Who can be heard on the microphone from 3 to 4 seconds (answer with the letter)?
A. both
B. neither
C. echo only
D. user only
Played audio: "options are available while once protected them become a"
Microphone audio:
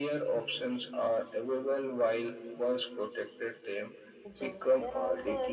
C